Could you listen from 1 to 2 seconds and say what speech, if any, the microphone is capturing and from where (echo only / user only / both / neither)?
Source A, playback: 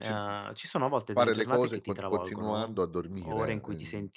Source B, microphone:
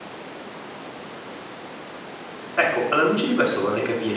neither